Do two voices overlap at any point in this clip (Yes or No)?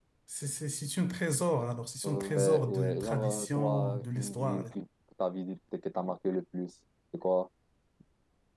Yes